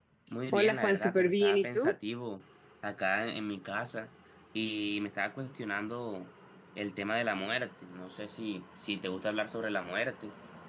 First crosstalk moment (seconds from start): 0.5 s

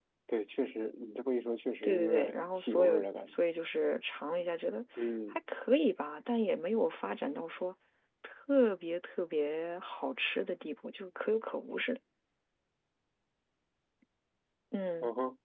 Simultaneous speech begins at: 1.8 s

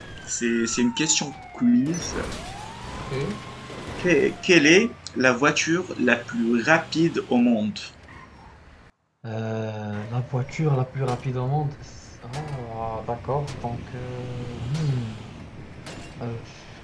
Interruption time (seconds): none

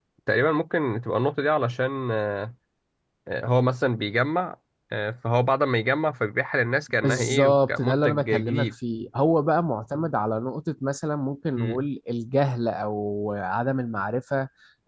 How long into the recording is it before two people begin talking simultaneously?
7.0 s

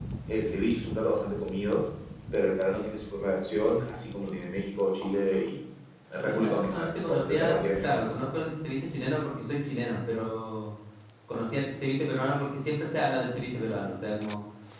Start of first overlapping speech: 6.2 s

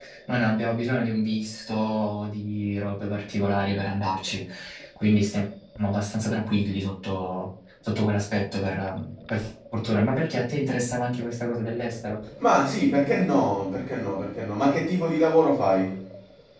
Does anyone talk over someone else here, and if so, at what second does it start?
none

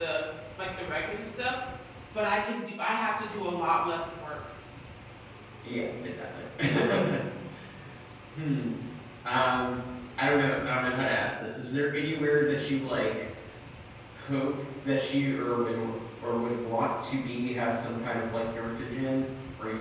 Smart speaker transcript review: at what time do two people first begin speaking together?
none

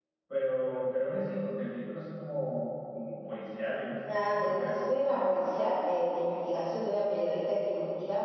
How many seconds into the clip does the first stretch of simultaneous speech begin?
4.1 s

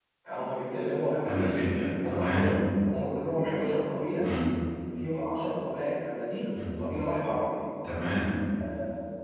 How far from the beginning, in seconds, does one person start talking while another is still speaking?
1.3 s

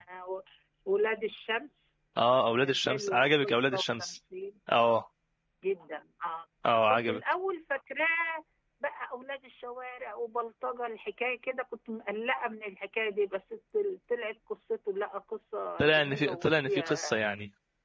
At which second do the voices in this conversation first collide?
2.6 s

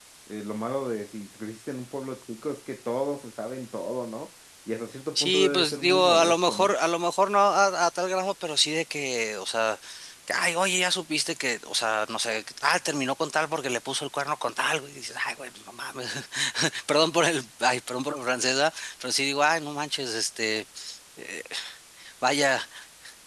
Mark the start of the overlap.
5.2 s

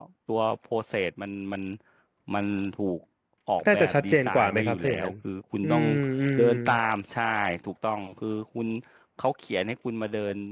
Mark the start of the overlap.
3.7 s

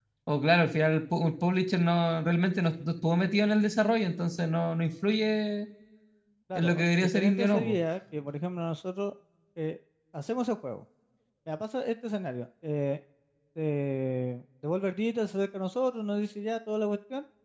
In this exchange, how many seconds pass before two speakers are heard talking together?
6.5 s

